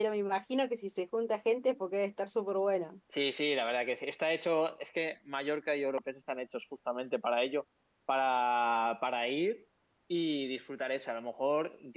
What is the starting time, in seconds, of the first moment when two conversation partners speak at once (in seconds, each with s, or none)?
none